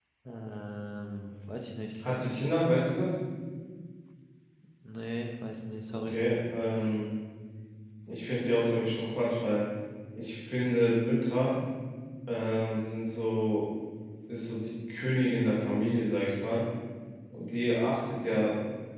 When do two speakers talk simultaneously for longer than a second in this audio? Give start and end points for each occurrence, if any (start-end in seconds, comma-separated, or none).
none